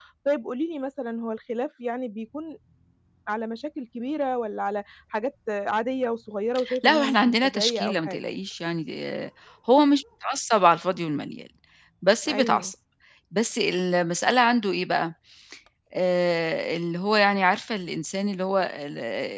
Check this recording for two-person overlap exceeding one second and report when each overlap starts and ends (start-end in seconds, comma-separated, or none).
6.8-8.2